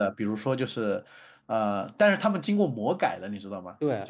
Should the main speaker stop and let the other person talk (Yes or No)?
Yes